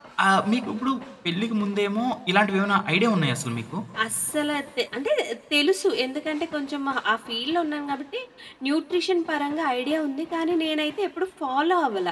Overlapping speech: No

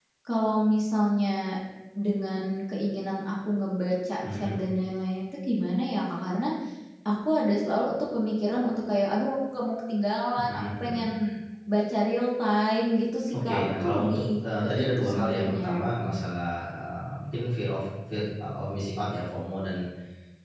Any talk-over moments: Yes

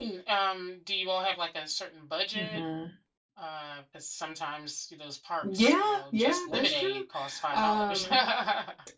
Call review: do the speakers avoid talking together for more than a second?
No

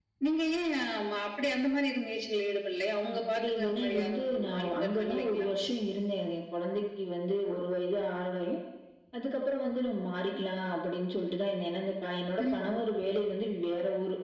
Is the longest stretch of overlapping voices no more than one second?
No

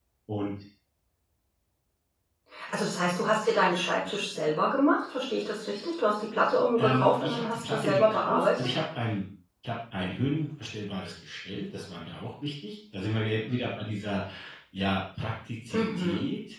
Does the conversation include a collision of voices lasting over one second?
Yes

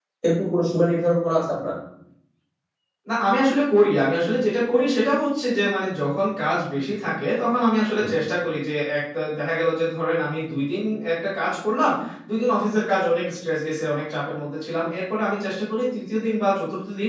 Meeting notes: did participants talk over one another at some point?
No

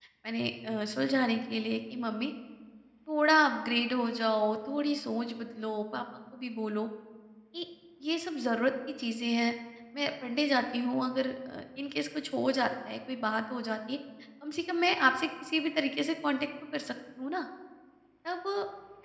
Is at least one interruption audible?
No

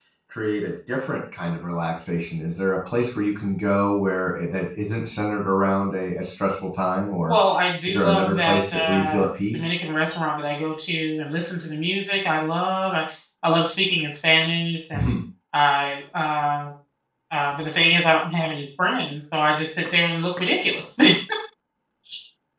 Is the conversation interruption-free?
No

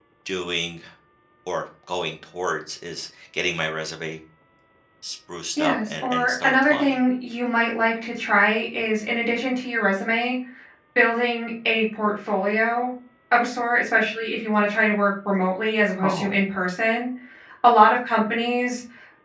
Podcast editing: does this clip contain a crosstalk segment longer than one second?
Yes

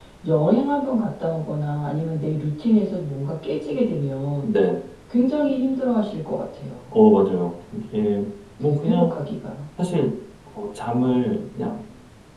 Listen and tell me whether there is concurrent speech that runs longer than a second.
No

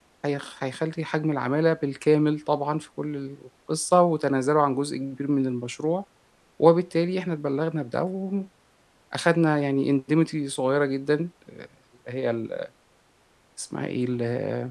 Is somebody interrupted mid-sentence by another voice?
No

